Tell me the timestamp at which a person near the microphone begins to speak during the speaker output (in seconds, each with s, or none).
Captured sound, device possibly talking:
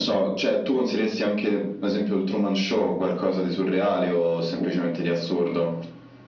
none